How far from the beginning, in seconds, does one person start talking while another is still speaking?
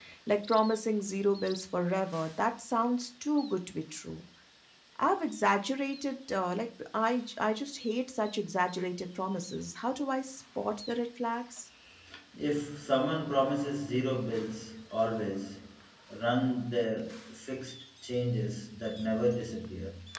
none

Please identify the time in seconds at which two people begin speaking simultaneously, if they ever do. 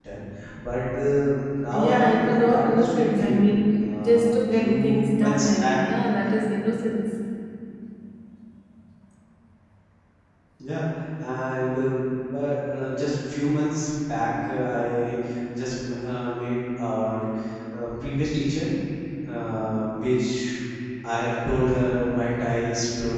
1.7 s

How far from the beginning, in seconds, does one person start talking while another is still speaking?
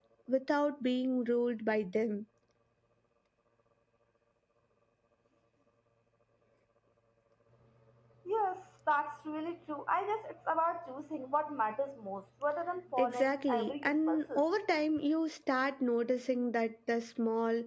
13.0 s

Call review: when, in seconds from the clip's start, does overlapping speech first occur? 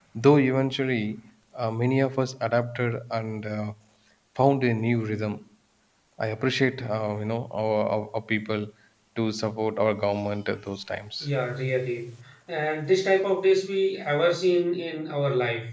none

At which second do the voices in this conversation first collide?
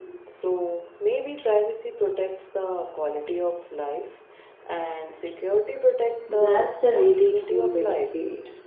6.3 s

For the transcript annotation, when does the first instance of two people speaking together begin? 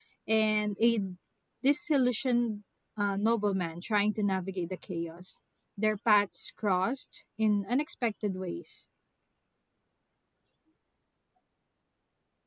none

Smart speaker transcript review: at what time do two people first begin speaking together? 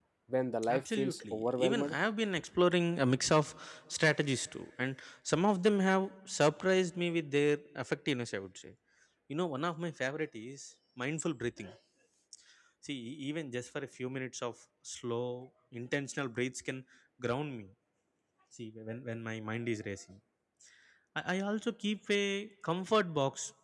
0.7 s

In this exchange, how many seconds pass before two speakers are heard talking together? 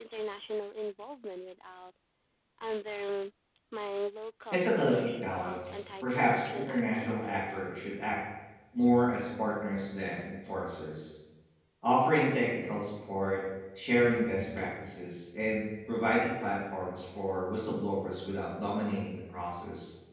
4.5 s

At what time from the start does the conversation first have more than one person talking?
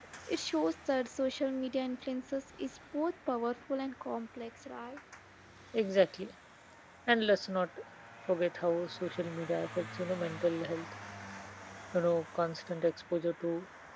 none

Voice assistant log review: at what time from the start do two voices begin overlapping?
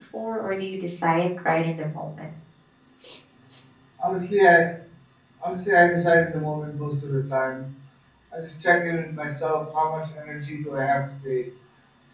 none

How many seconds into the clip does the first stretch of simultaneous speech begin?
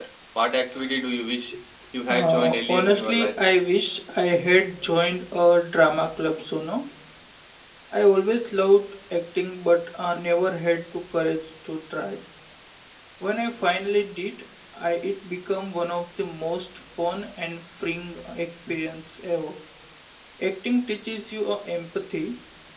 2.1 s

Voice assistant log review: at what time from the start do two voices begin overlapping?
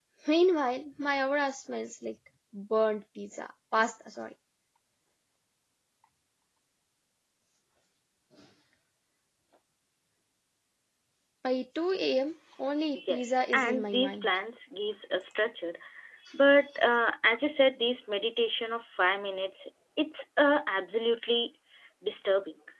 12.9 s

